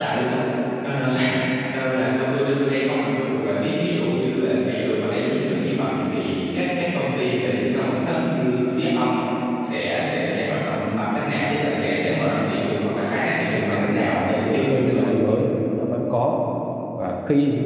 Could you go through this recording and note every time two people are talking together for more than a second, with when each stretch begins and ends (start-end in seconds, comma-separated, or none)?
13.5-15.0